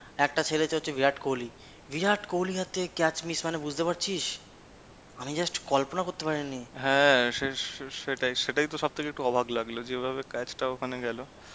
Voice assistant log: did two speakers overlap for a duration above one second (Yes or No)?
No